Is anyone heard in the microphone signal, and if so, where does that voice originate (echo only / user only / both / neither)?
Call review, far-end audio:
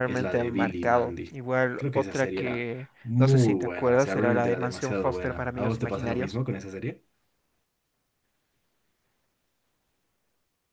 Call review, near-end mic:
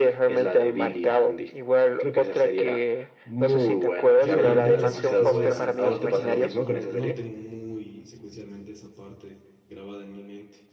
both